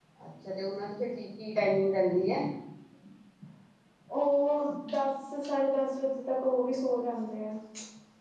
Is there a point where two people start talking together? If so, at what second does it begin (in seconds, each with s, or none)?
none